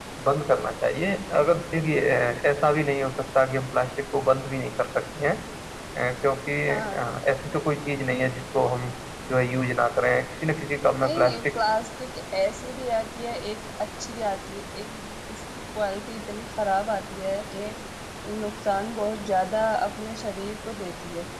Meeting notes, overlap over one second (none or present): none